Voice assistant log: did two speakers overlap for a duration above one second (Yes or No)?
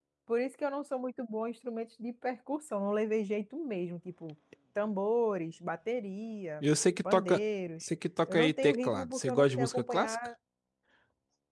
Yes